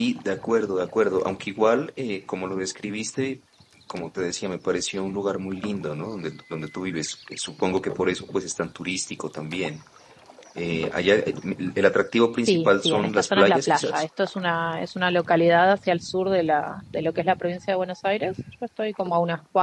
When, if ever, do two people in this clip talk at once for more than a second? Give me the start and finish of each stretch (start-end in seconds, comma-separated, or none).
12.5-14.0